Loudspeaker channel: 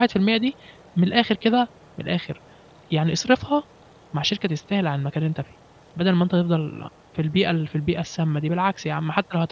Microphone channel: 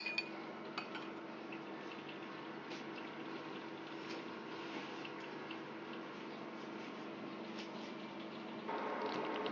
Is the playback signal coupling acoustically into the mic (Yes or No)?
No